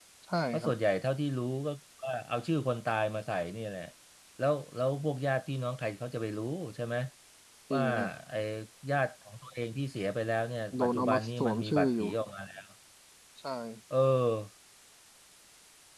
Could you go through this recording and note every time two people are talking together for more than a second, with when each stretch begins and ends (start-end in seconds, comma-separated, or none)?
10.8-12.1